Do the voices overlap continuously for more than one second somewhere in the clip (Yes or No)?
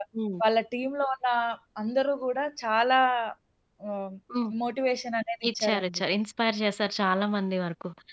No